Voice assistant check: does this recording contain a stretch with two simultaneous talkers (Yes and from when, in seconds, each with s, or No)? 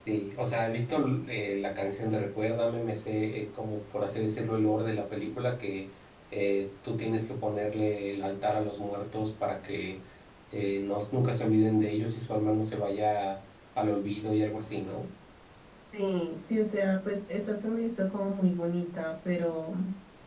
No